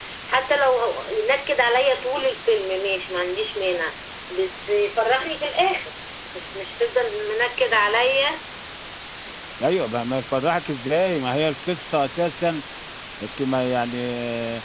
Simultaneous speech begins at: none

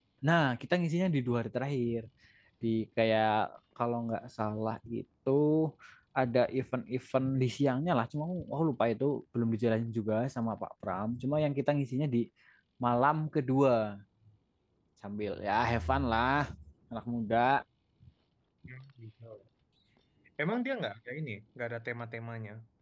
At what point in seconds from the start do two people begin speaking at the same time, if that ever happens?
none

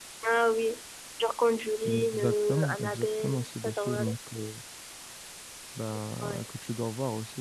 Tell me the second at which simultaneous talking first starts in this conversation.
2 s

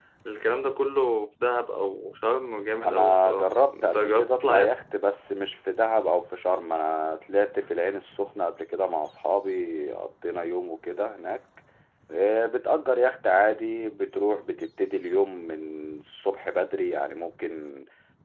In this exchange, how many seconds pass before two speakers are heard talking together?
3 s

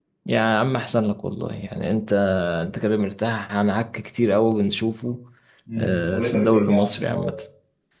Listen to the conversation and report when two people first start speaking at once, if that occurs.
6 s

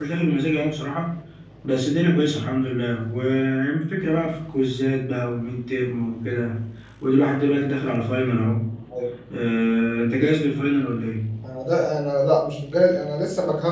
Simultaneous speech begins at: none

